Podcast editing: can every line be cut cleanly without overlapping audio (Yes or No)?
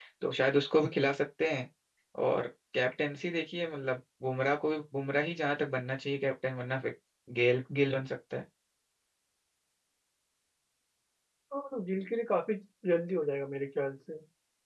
Yes